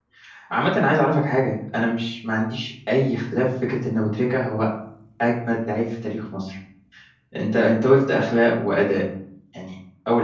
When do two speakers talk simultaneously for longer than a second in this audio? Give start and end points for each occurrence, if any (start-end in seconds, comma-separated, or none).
none